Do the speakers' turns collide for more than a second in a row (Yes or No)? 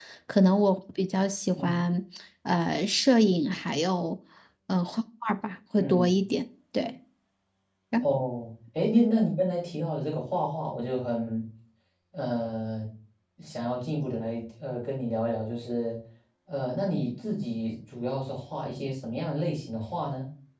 No